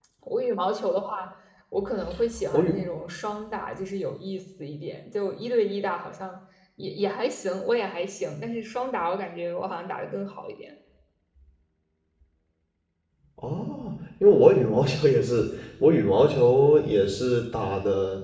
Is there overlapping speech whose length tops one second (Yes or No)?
No